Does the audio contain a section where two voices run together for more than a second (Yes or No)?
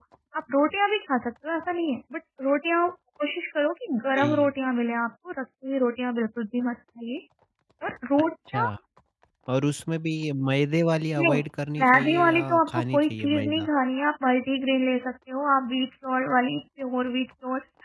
Yes